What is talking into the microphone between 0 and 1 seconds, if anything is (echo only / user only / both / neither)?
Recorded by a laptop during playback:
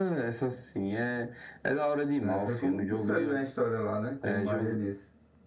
echo only